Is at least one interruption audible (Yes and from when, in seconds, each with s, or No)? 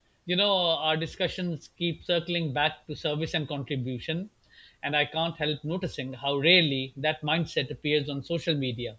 No